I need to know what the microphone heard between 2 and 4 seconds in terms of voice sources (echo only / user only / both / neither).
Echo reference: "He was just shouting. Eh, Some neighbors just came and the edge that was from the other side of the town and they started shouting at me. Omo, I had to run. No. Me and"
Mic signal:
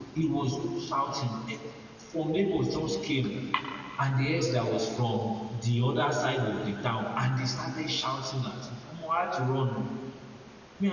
echo only